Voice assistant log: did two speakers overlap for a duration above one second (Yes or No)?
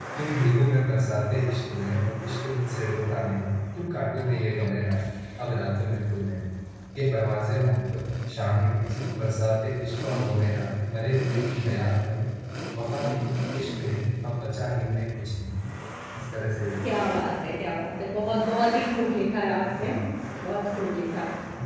No